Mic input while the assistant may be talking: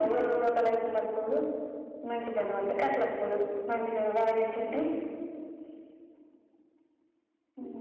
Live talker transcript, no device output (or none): none